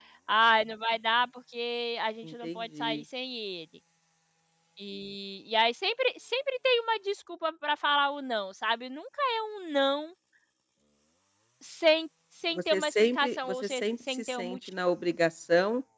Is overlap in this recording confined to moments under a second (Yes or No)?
No